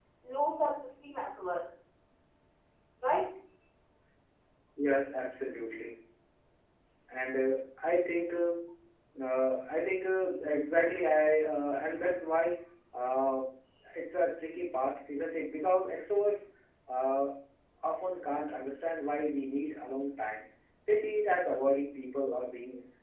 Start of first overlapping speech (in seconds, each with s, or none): none